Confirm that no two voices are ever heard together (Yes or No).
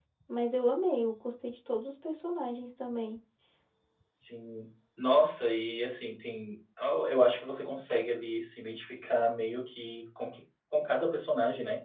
Yes